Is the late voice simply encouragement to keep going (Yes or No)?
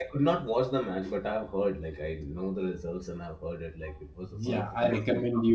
No